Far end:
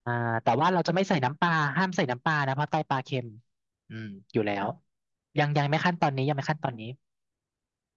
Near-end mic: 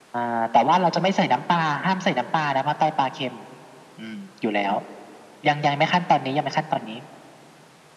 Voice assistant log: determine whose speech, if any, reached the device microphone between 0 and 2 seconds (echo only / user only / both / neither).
echo only